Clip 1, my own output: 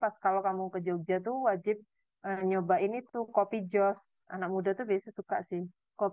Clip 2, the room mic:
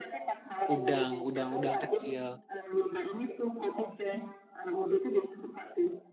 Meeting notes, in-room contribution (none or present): present